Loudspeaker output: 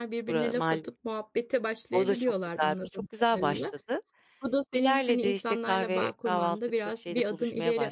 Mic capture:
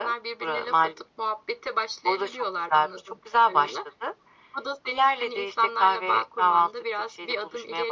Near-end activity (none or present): none